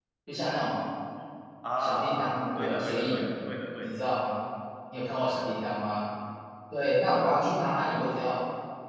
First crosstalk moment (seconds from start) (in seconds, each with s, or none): 1.8 s